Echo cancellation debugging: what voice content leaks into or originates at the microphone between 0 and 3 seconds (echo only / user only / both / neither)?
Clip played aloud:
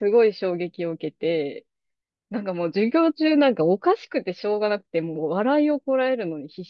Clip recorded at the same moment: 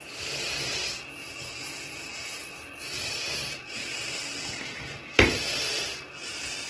neither